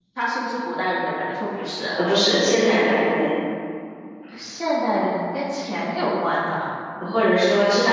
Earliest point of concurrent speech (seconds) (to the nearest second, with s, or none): none